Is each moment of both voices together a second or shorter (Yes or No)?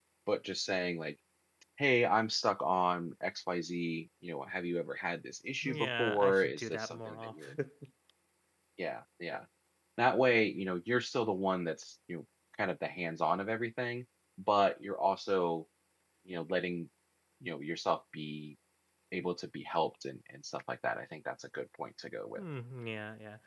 No